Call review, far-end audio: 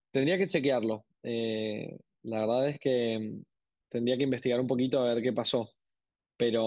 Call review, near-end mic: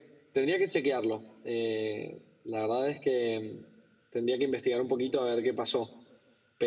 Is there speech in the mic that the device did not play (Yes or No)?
No